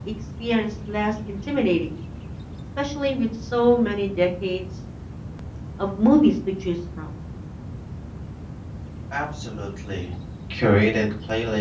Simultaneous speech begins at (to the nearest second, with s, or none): none